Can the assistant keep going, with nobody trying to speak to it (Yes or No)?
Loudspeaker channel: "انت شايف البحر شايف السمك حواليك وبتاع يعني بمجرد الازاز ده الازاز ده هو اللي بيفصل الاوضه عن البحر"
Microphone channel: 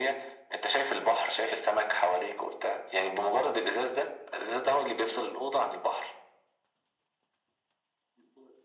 Yes